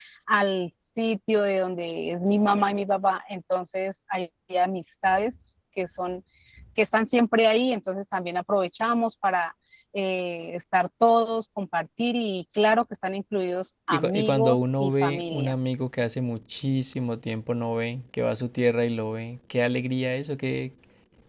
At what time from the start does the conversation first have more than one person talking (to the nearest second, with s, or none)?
14 s